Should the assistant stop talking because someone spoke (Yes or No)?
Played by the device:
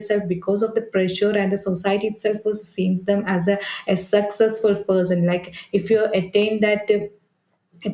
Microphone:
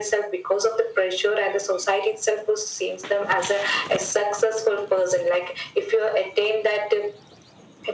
No